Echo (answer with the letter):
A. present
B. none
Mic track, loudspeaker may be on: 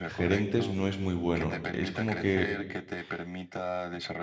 A